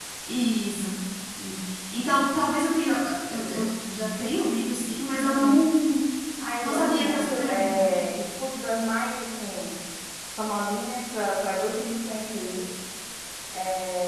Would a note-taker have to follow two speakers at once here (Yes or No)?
Yes